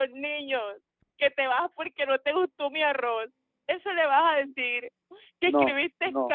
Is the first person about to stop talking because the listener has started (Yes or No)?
No